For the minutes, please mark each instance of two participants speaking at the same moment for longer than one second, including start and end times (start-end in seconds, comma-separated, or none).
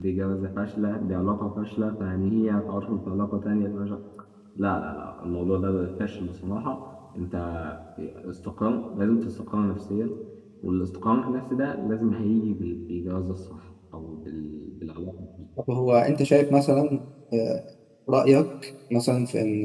none